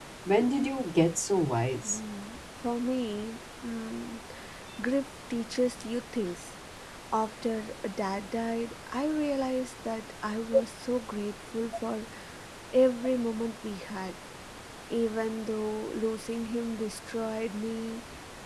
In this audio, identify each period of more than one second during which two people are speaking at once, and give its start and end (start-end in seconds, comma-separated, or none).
none